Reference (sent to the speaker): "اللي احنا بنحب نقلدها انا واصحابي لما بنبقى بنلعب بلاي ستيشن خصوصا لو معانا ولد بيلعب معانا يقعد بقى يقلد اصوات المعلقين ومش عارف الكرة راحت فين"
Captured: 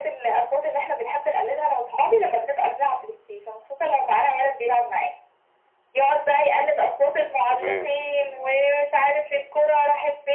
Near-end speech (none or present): present